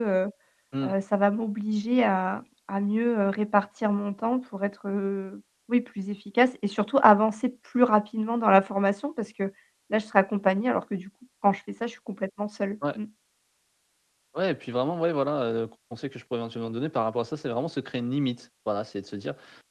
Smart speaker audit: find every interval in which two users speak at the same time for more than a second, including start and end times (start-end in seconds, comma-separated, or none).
none